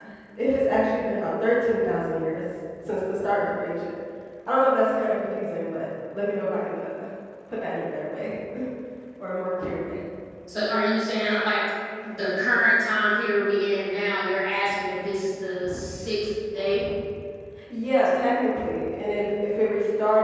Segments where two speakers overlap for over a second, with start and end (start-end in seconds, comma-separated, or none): none